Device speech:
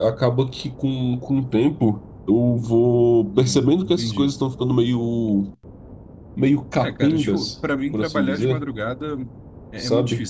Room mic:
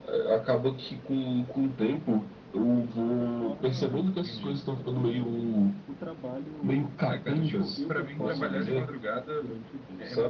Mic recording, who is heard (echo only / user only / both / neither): both